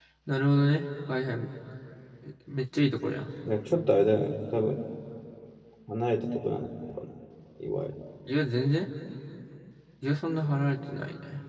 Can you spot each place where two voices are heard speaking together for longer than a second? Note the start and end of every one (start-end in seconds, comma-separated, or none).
none